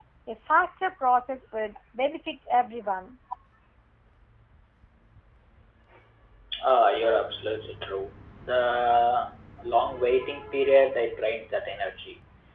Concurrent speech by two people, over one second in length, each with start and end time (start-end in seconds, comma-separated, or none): none